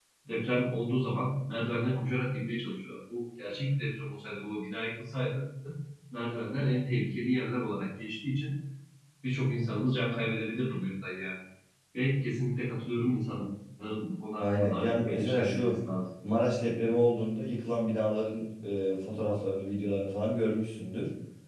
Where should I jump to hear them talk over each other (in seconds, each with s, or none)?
14.4 s